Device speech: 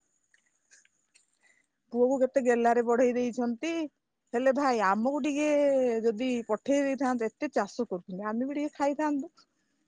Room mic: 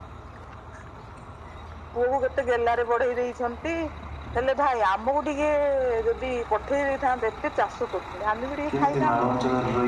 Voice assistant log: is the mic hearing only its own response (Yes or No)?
No